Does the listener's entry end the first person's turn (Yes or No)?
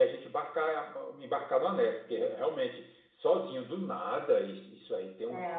No